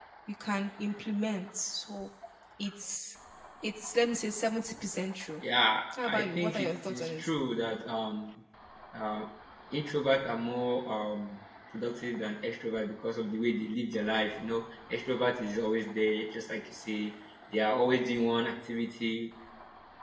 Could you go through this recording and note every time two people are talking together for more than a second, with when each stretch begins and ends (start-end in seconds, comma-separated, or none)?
5.9-7.3